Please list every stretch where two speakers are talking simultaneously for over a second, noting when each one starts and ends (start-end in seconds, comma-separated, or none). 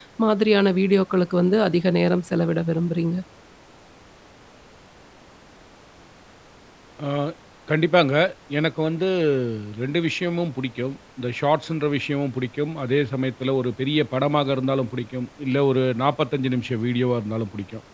none